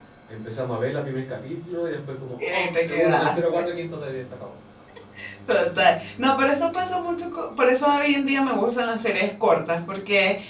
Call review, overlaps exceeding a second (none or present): present